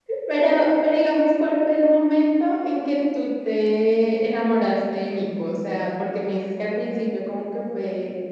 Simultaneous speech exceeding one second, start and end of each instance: none

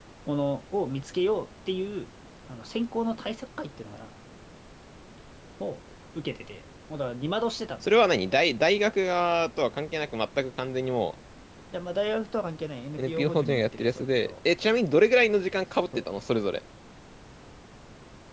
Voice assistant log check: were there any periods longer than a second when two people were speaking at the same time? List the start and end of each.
13.0-14.3

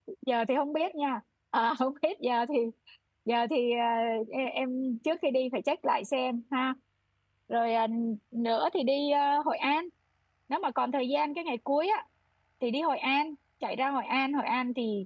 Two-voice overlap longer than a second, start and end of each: none

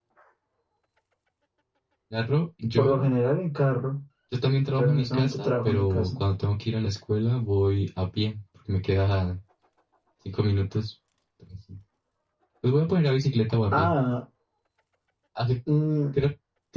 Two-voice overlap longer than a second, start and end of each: 4.8-6.1

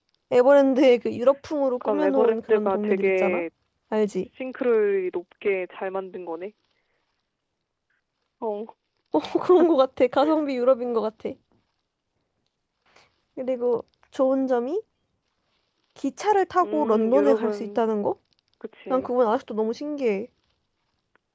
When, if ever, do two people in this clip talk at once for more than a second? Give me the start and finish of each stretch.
1.8-3.4, 16.6-17.9

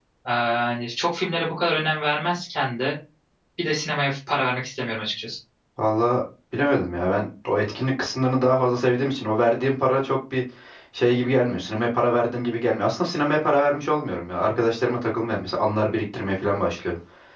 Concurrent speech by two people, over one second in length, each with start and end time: none

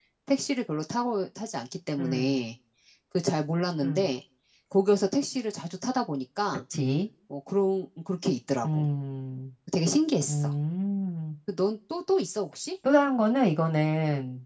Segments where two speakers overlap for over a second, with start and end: none

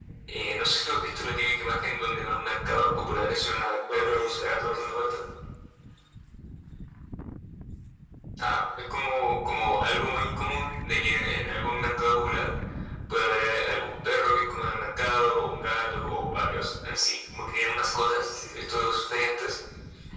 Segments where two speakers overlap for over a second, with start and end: 3.9-5.2

